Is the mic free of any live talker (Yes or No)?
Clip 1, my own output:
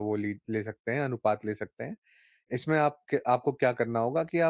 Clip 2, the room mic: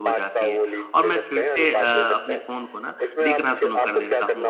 No